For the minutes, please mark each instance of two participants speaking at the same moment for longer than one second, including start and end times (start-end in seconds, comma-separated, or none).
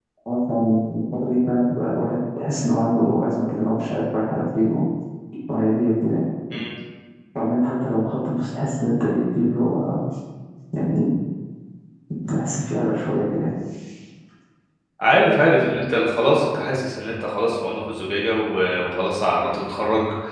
none